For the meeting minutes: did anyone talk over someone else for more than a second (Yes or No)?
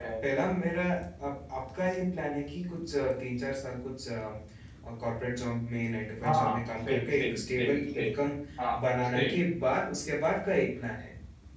Yes